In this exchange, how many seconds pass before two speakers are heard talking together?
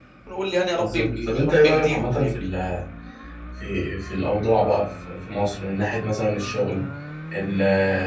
0.8 s

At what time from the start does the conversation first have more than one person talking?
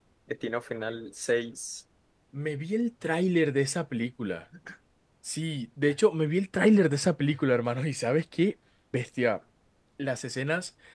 none

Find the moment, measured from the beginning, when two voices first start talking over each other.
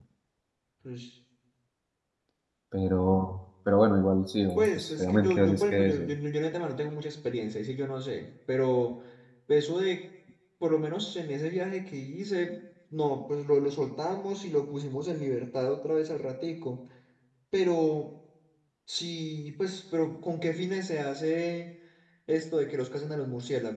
4.6 s

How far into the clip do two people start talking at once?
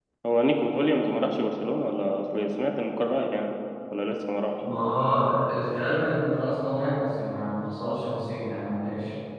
none

